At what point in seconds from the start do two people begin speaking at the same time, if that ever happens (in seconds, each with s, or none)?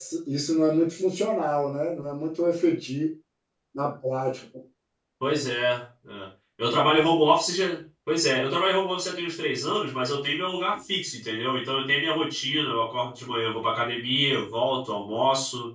none